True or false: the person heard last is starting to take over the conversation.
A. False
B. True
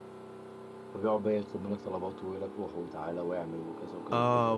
B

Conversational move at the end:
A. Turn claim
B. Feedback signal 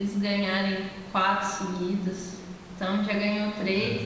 B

